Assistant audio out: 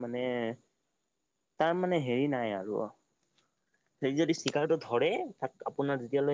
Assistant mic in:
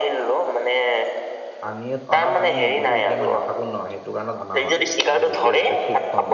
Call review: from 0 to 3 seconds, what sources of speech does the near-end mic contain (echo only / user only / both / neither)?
both